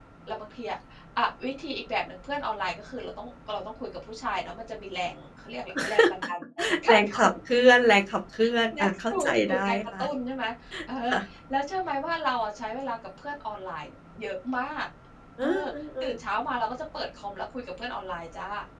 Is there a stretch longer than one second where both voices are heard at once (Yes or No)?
Yes